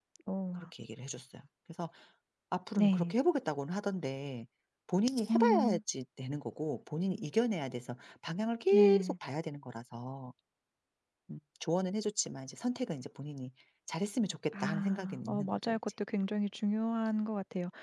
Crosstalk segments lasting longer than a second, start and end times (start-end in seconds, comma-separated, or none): 14.5-15.8